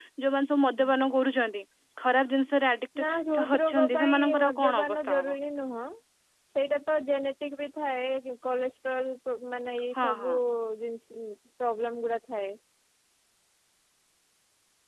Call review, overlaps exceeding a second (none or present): present